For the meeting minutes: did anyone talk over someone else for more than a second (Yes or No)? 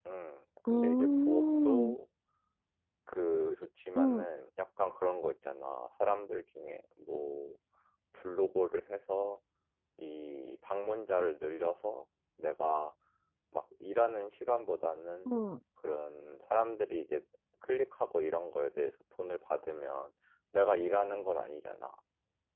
Yes